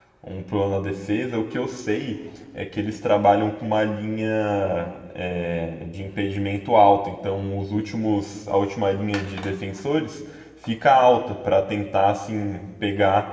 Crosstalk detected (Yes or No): No